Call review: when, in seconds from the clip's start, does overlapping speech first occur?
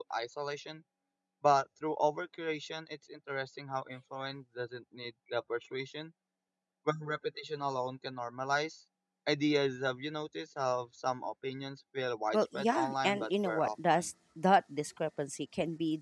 12.3 s

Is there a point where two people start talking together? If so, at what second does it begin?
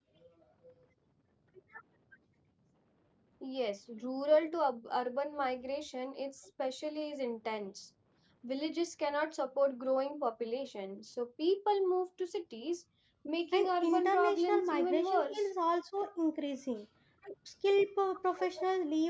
13.5 s

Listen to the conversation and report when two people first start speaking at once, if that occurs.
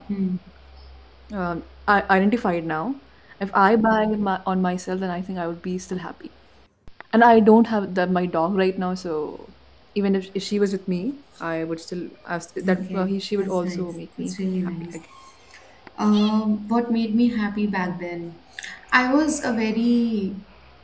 12.6 s

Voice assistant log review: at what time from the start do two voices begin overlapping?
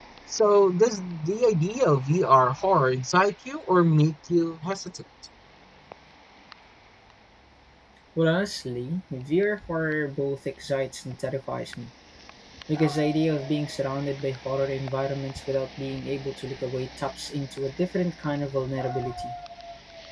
none

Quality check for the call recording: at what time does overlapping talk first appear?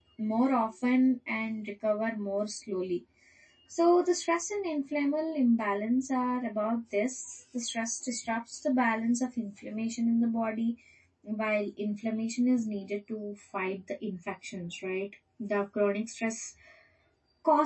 none

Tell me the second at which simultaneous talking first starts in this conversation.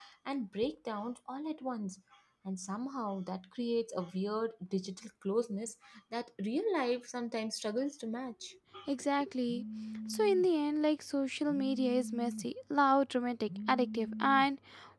none

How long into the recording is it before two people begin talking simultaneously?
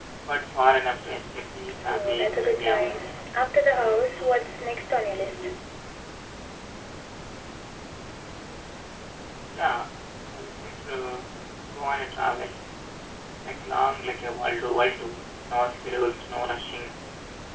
1.9 s

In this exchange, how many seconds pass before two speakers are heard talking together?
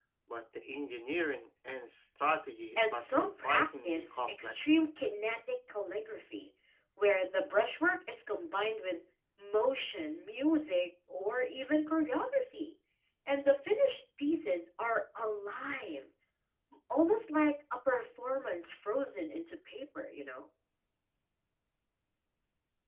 2.8 s

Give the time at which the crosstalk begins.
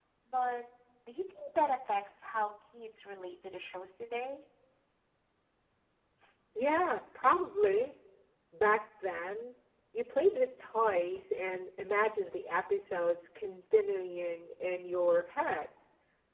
none

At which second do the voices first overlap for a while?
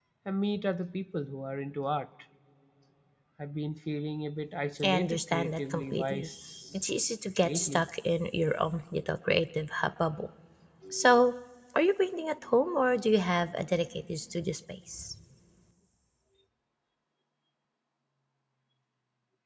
4.8 s

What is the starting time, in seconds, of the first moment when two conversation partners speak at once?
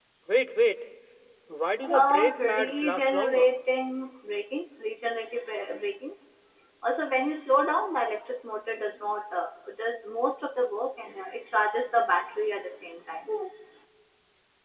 1.9 s

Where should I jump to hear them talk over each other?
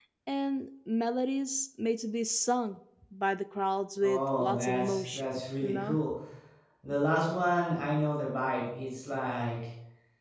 4.0 s

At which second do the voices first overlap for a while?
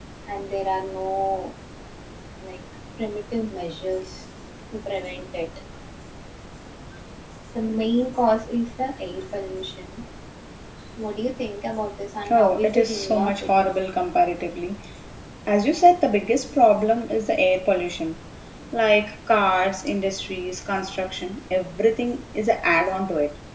12.3 s

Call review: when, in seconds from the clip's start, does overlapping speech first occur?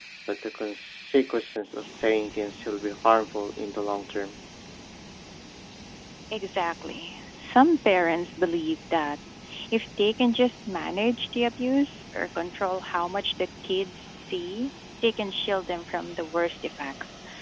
none

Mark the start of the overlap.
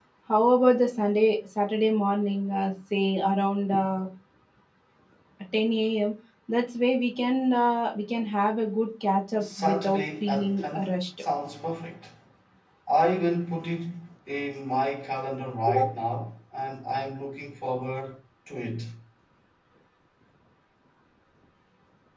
9.4 s

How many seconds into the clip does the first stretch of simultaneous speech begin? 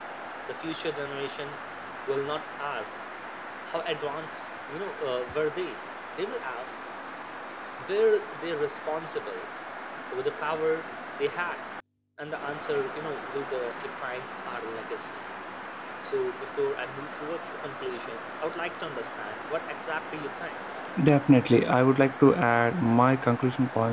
none

